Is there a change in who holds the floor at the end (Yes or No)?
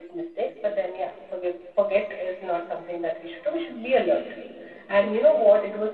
No